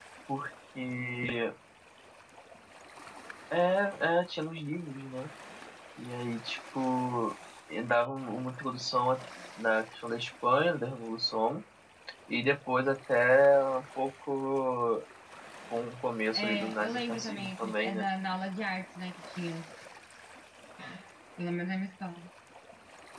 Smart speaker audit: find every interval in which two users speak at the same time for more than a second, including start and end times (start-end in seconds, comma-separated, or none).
16.3-18.0